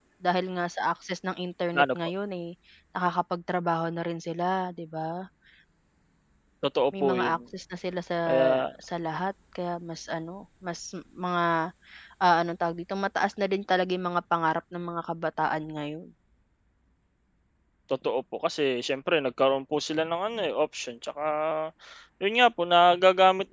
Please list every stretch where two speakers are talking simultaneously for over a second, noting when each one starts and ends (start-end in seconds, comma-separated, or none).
none